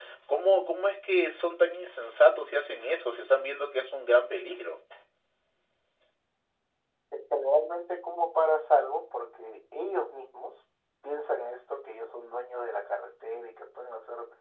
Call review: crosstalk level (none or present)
none